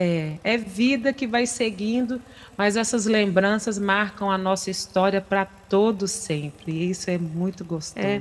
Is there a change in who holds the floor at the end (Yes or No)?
Yes